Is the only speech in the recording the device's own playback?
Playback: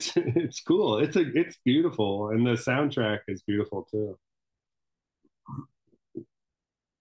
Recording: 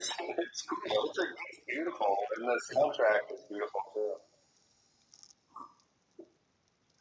Yes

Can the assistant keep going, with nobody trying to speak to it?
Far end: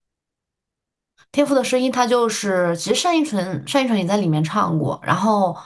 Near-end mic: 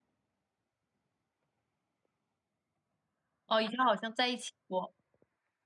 No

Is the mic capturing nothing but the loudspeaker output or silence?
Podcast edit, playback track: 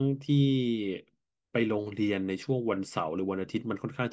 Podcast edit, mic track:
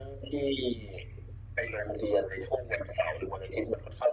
Yes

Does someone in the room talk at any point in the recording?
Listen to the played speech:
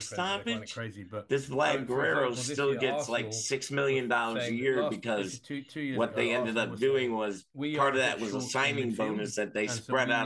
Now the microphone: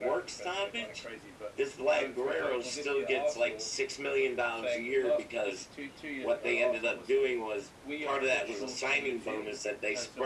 No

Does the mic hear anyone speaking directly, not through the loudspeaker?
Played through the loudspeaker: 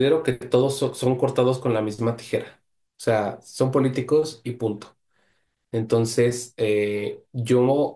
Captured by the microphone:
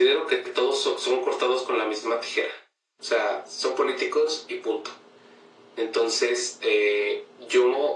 No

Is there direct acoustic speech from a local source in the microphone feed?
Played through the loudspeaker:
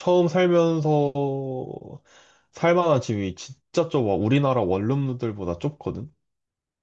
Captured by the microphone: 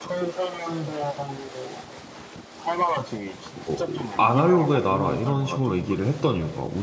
Yes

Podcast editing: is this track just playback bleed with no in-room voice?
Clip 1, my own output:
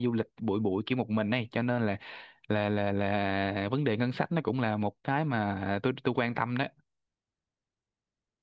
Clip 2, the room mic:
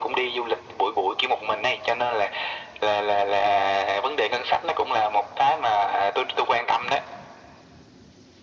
Yes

